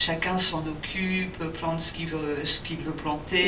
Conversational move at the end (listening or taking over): listening